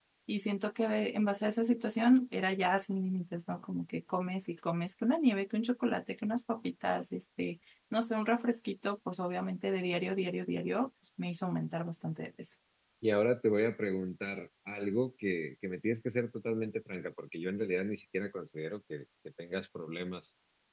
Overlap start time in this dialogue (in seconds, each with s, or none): none